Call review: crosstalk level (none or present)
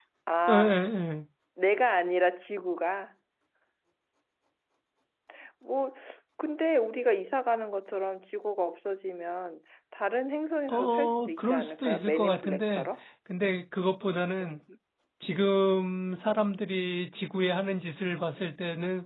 present